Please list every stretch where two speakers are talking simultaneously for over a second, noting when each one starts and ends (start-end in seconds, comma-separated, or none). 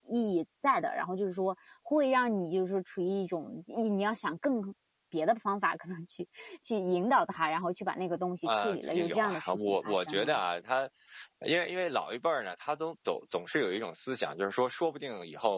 8.4-10.4